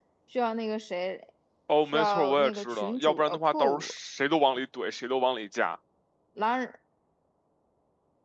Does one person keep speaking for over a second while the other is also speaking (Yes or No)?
Yes